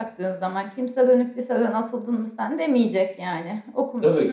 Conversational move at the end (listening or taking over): taking over